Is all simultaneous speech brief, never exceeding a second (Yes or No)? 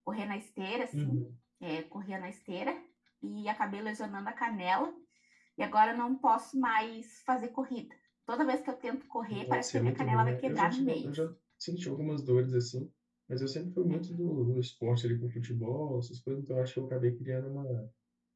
No